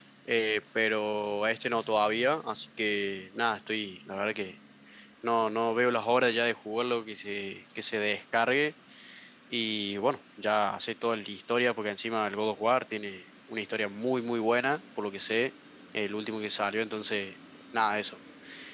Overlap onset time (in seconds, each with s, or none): none